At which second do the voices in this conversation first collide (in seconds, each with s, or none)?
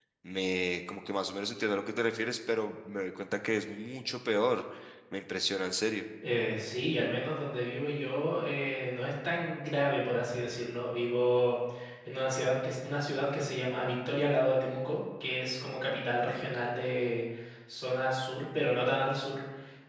none